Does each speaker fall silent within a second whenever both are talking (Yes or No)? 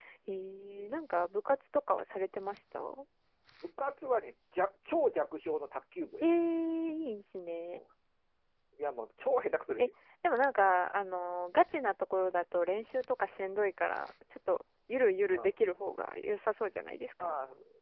Yes